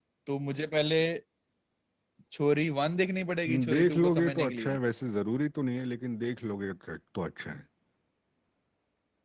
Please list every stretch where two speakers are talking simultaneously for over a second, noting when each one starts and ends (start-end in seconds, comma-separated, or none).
3.5-4.8